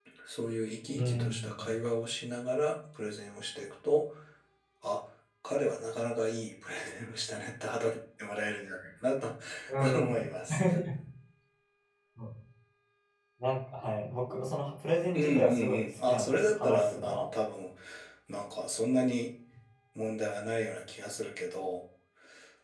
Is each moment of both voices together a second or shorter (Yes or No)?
No